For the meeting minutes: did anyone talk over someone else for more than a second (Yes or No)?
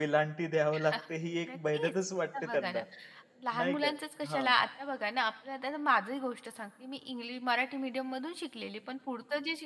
No